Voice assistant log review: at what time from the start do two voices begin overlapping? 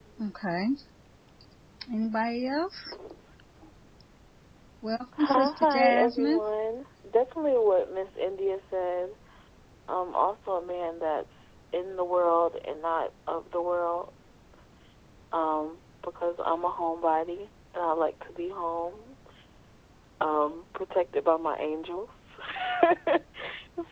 5.2 s

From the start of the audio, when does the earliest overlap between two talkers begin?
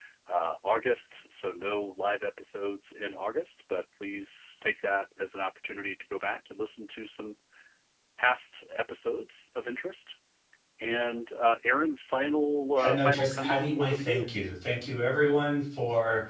12.8 s

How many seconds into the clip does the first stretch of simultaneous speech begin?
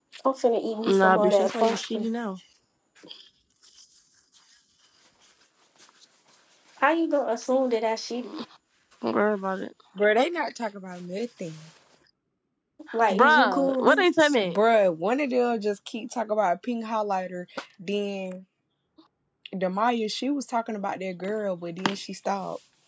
0.9 s

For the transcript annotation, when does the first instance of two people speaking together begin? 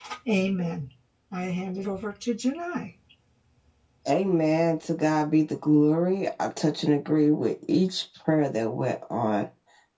none

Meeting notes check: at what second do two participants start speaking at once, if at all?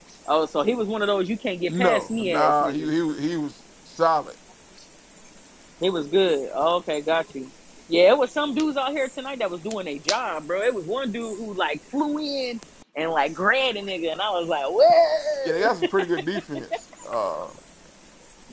1.7 s

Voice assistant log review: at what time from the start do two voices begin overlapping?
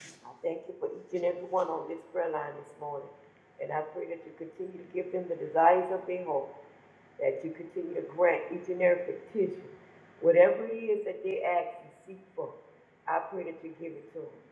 none

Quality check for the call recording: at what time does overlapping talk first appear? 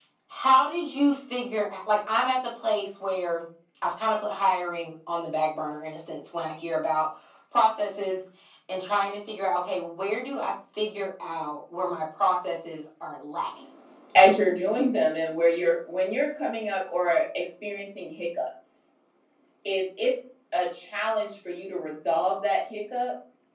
none

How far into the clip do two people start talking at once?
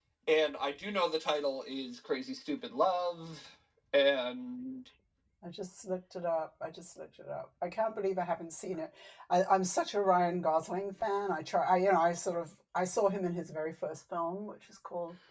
none

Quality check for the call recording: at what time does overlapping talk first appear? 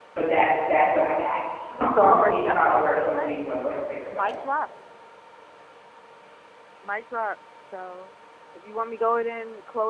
2.0 s

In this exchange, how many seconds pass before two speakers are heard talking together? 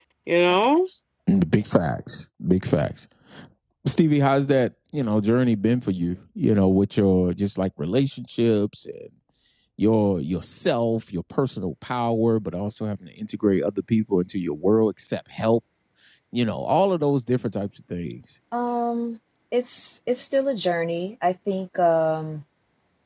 none

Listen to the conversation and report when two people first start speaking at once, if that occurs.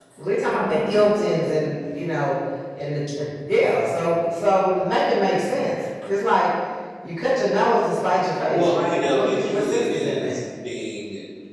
8.5 s

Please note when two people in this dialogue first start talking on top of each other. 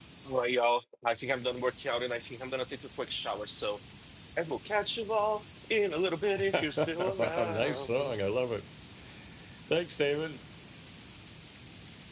6.5 s

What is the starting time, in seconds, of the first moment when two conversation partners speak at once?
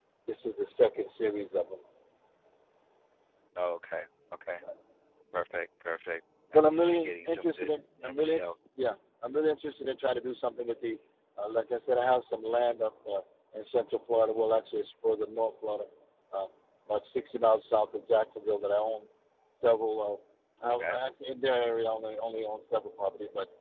6.5 s

